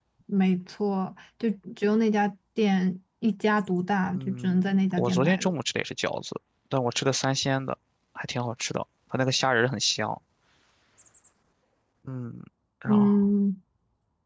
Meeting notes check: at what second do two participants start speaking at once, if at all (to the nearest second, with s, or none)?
4 s